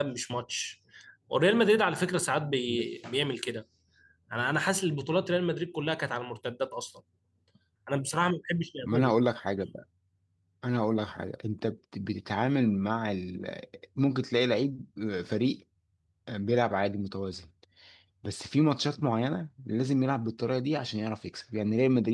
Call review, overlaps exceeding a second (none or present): none